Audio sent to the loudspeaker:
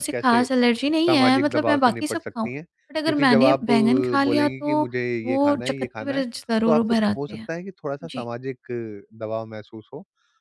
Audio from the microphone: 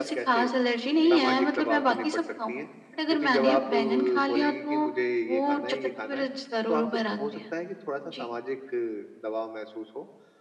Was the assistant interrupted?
Yes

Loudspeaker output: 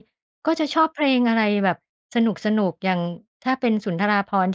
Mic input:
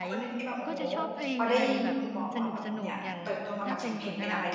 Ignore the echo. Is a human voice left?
Yes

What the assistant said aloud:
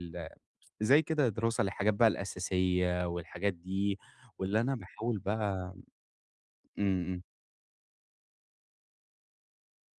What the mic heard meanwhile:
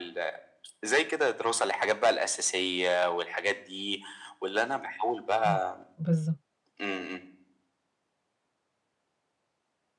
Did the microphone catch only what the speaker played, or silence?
No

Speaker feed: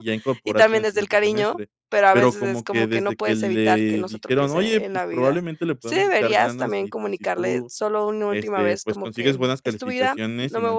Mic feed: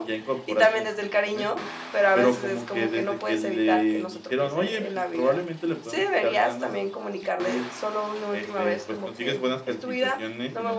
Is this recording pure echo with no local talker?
Yes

